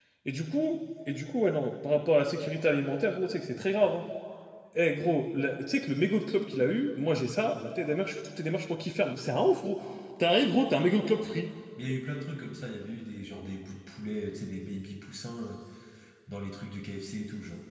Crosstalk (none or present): none